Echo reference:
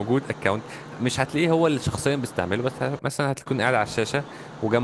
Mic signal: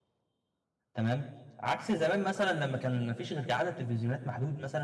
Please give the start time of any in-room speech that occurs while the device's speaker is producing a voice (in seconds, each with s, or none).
0.9 s